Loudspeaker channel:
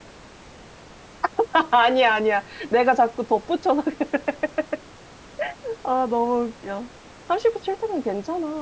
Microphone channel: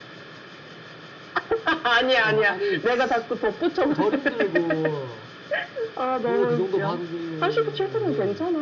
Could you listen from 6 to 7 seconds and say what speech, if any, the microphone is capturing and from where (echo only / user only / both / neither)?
both